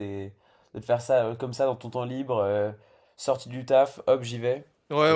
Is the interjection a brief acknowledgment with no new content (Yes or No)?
No